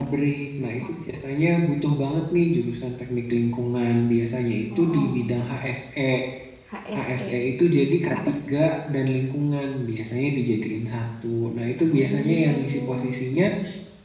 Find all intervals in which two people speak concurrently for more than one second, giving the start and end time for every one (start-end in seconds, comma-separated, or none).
11.9-13.2